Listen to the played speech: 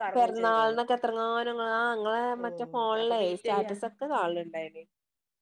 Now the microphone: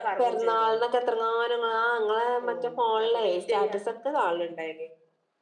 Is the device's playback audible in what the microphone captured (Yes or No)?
Yes